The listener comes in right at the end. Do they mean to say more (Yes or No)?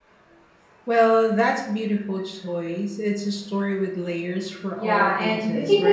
Yes